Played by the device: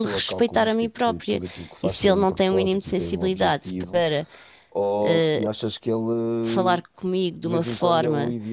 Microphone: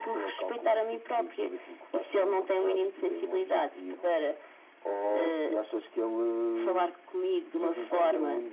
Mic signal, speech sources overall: echo only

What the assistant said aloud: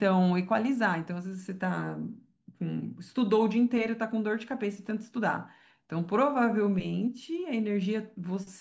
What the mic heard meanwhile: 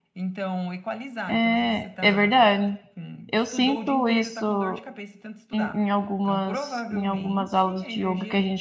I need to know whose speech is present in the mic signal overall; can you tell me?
both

